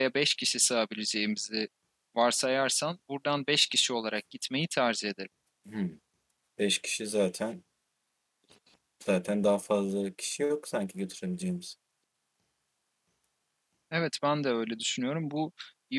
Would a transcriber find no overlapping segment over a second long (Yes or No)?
Yes